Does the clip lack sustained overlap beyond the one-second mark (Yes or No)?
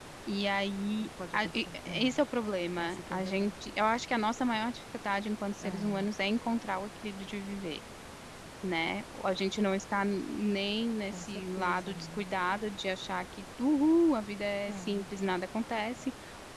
No